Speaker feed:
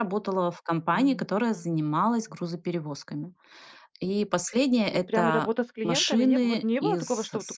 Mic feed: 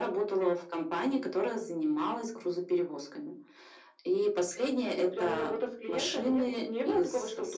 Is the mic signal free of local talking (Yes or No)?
Yes